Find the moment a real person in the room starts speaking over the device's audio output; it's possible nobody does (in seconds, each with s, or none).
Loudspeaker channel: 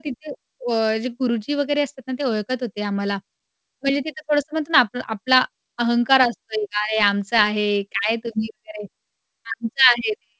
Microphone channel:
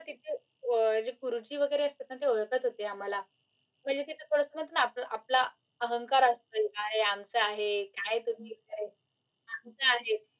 none